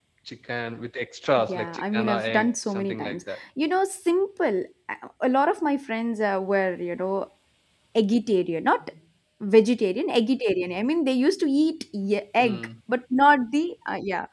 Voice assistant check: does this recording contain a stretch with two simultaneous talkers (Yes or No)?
Yes